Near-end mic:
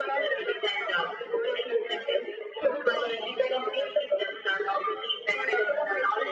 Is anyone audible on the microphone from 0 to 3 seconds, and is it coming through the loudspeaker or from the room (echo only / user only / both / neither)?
echo only